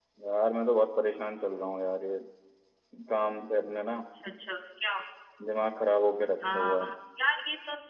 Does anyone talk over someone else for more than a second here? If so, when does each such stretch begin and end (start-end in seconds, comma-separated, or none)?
none